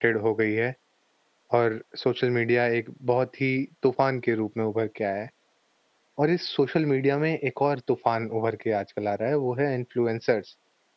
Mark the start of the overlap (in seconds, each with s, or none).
none